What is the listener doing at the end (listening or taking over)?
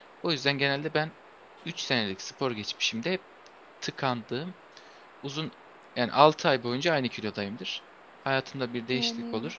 listening